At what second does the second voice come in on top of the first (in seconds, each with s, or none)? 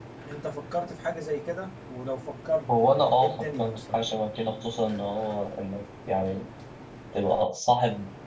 2.7 s